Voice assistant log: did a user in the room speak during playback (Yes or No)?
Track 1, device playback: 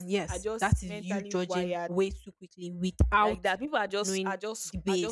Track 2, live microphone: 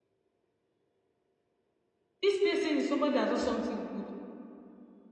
Yes